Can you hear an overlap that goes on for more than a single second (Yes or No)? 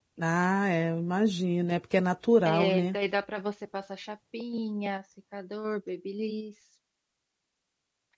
No